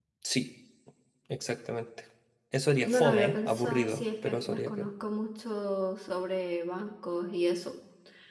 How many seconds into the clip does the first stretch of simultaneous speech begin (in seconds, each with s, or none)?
2.8 s